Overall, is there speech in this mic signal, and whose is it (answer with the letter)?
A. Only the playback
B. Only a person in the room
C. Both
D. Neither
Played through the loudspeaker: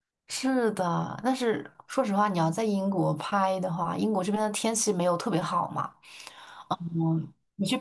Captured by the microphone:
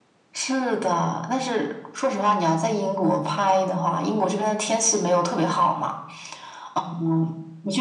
A